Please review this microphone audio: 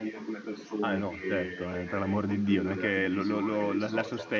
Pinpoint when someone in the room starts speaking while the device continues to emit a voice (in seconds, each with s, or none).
0.8 s